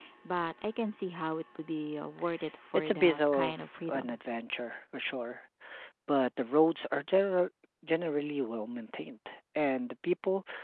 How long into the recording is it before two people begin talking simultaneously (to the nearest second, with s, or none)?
3 s